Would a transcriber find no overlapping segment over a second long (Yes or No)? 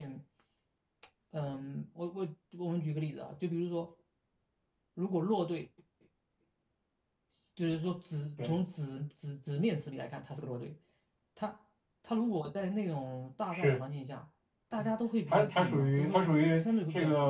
No